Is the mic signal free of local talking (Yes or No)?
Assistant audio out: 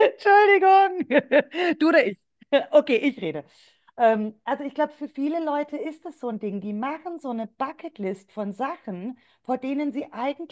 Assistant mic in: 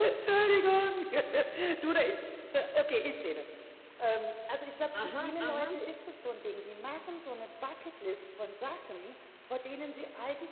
No